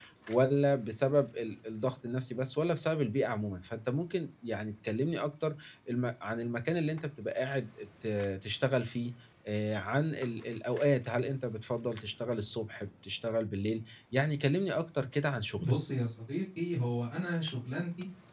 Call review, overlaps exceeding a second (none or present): none